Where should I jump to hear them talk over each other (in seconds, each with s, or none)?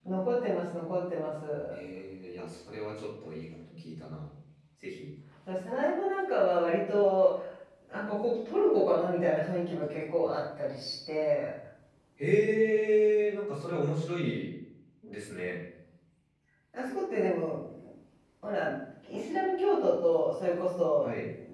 none